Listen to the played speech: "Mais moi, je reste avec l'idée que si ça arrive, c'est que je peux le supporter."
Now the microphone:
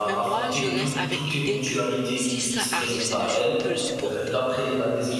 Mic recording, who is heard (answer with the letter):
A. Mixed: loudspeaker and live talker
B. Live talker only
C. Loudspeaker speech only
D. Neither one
A